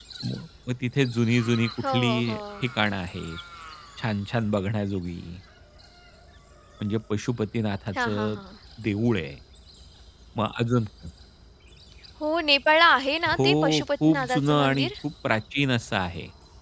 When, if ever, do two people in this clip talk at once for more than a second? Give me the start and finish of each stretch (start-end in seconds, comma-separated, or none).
13.3-14.9